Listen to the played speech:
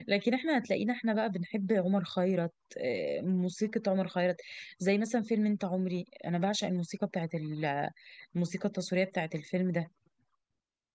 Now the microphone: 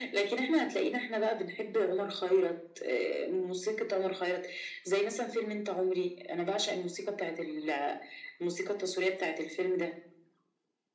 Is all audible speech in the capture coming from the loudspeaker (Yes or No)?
Yes